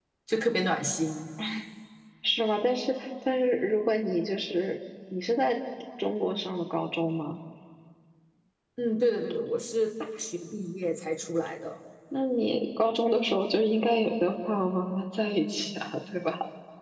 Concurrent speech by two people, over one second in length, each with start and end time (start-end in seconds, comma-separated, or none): none